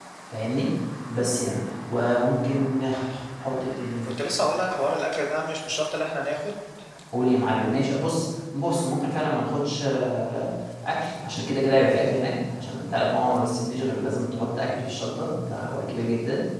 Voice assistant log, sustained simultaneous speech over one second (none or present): none